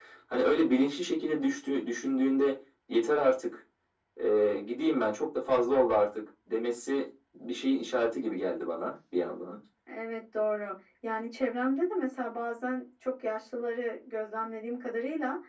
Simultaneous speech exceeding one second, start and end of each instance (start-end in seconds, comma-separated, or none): none